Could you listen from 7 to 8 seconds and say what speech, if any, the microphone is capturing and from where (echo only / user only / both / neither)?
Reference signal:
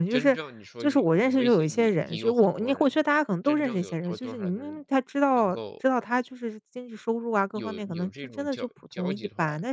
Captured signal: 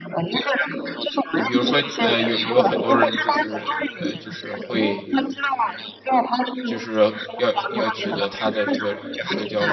both